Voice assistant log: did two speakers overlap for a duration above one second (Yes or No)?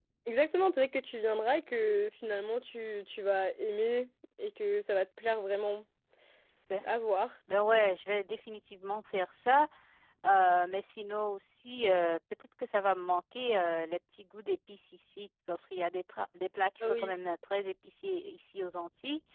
No